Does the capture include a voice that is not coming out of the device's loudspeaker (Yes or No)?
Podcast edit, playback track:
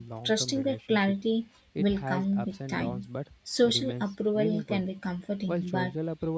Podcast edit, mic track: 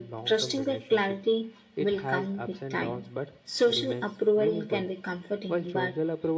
No